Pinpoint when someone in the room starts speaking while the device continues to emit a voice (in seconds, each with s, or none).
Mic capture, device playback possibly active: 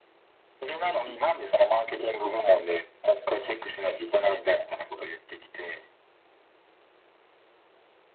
none